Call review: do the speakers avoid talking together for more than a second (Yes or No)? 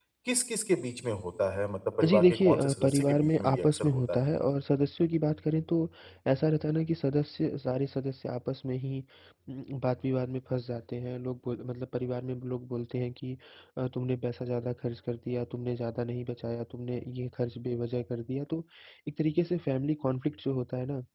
No